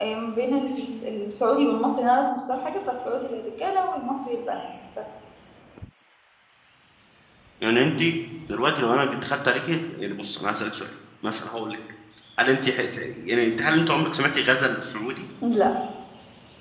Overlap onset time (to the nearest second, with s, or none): none